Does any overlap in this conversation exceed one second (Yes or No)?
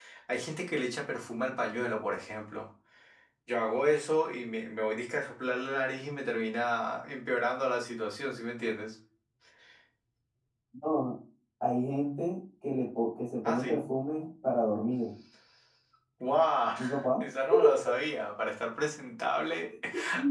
No